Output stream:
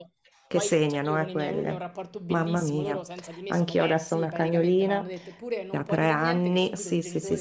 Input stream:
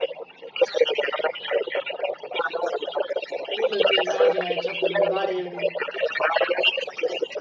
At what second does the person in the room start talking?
3.5 s

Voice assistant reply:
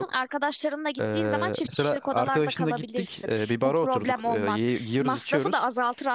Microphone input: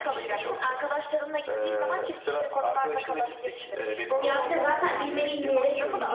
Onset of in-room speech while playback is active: 4.2 s

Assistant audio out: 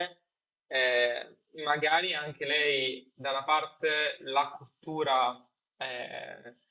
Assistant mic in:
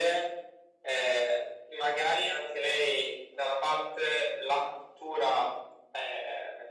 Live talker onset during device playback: none

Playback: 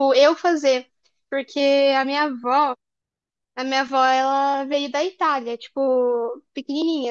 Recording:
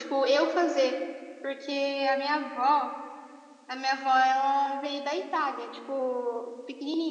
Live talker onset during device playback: none

